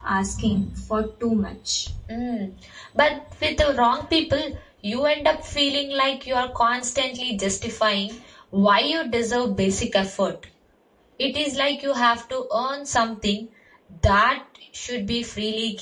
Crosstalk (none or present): none